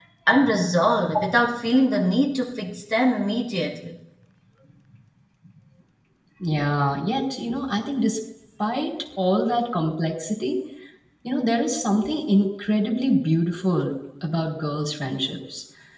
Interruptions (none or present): none